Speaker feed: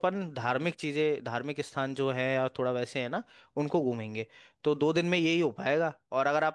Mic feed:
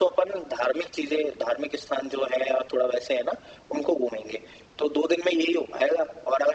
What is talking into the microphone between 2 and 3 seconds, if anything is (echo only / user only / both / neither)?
echo only